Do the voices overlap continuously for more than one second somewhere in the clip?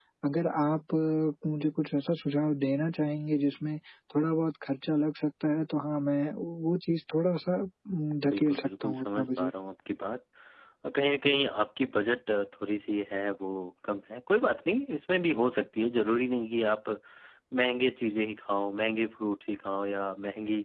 Yes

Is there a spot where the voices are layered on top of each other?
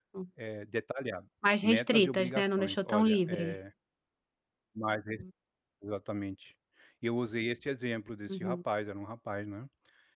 Yes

